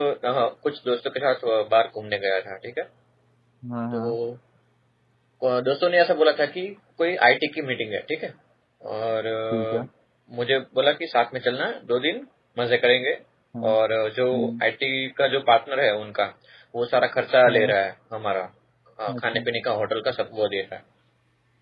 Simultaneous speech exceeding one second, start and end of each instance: none

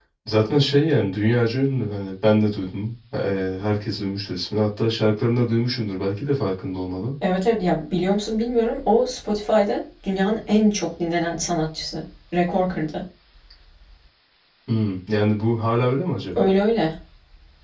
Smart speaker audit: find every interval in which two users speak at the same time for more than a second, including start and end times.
none

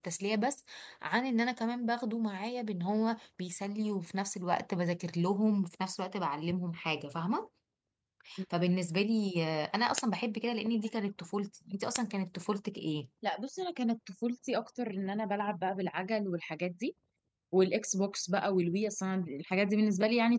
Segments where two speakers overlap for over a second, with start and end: none

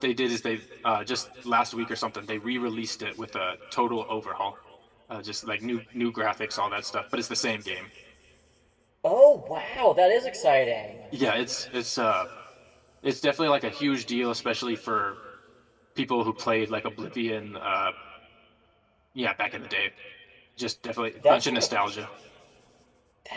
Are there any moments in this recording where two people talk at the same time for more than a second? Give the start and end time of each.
none

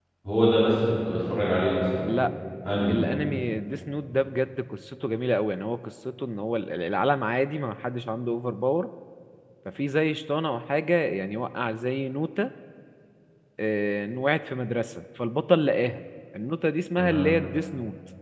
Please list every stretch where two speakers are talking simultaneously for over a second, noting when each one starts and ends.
none

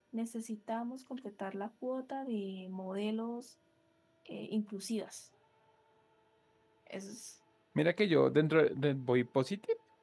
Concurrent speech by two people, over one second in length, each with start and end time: none

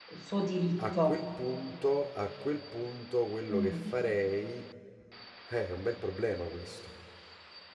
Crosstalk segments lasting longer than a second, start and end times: none

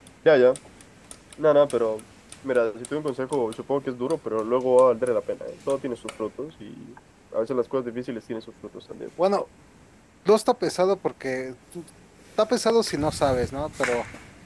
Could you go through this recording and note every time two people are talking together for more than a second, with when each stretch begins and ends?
none

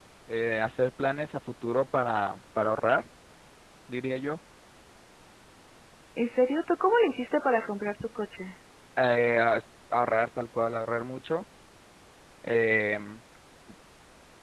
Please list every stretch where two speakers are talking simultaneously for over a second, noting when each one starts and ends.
none

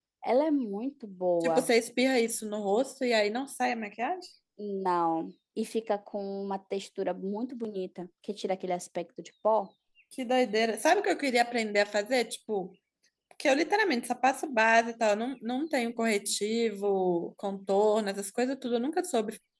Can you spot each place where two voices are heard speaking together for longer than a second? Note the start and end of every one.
none

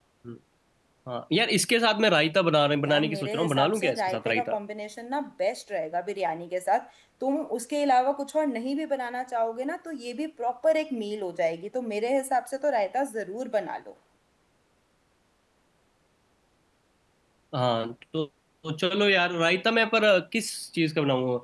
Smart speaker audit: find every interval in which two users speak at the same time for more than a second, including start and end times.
2.8-4.6

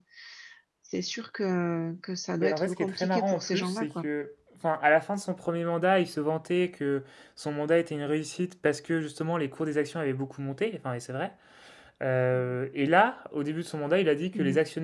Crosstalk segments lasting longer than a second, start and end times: 2.4-4.1

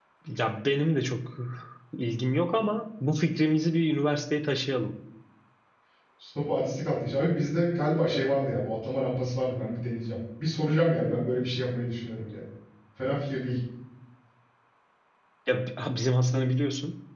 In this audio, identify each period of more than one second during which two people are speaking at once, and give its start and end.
none

